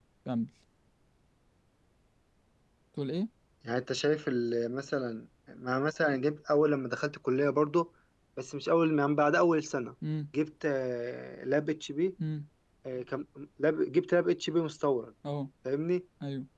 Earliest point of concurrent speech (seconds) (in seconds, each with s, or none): none